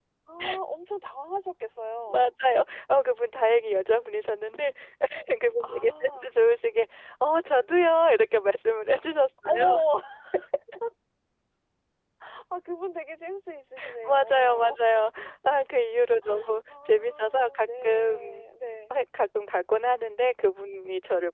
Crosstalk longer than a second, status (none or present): present